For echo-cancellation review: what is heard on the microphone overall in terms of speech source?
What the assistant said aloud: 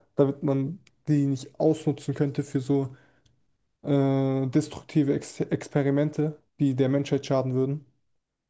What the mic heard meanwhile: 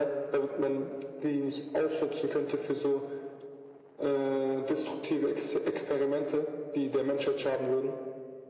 echo only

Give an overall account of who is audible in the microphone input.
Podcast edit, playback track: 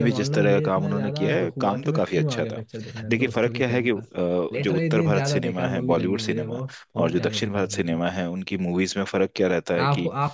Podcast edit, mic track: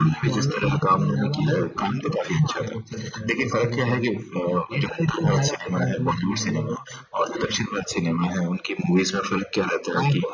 echo only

